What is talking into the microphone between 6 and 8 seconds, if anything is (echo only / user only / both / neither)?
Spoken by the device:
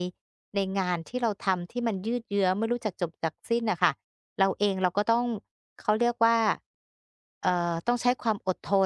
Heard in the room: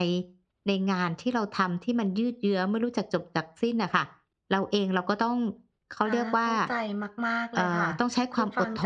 both